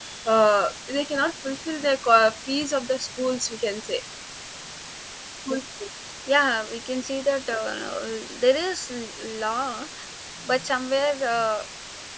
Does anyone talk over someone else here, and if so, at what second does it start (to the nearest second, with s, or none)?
none